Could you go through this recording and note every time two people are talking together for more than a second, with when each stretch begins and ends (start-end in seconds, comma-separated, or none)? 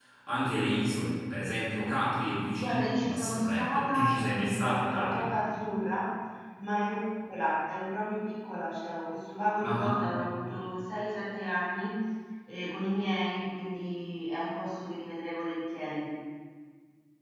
2.6-5.3